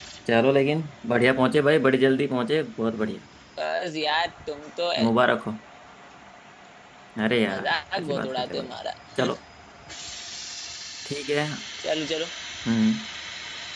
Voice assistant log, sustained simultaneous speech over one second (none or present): present